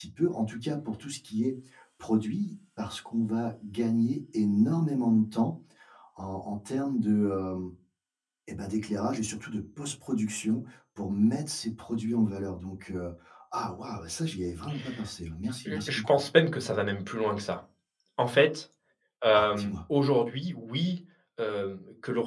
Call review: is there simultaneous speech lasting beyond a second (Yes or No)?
No